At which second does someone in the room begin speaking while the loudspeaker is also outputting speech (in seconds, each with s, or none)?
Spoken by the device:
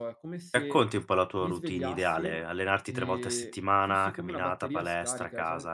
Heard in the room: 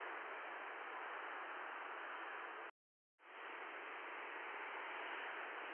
none